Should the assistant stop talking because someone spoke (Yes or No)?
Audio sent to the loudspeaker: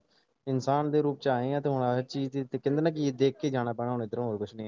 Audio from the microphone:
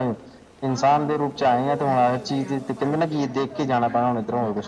Yes